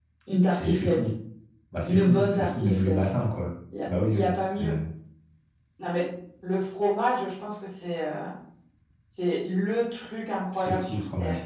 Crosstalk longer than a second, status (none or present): present